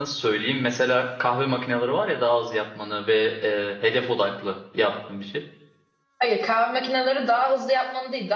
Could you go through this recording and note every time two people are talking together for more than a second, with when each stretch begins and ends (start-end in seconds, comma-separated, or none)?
none